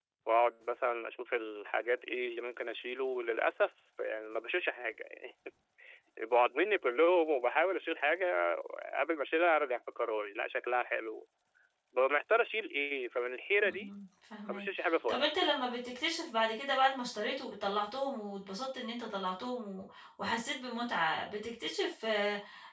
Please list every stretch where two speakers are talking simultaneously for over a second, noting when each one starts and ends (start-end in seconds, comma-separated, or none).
none